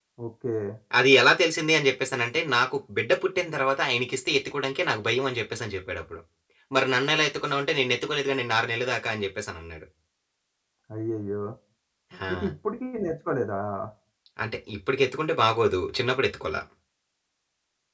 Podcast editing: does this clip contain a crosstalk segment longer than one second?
No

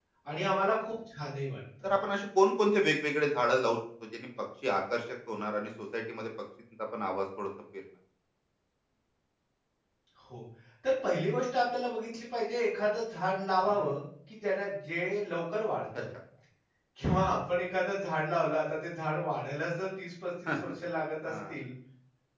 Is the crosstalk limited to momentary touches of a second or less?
Yes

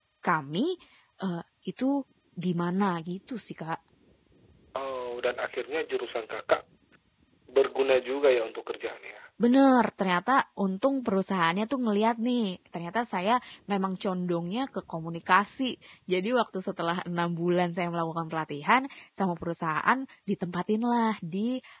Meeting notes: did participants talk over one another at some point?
No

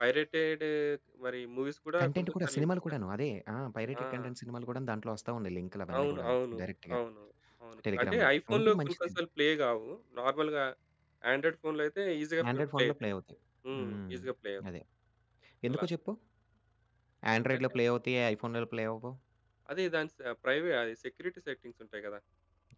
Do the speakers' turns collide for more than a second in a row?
Yes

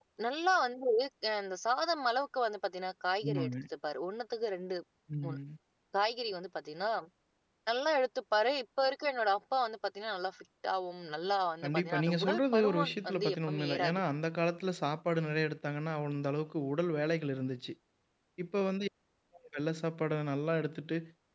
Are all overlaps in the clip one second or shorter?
No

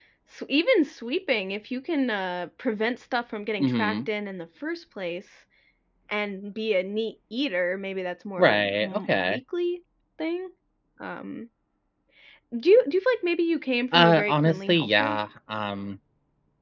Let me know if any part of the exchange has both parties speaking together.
Yes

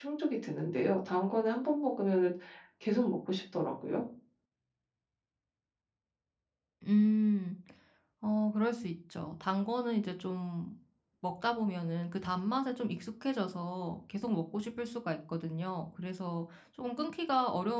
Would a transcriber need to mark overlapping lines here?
No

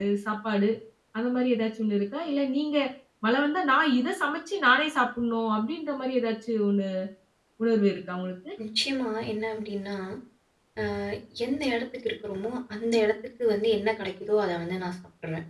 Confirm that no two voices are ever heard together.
Yes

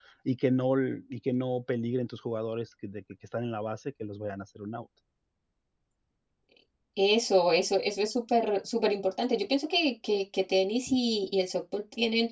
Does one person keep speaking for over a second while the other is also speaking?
No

